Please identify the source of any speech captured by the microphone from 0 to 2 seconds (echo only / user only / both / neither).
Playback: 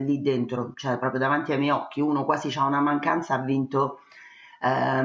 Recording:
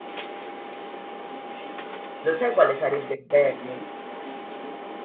neither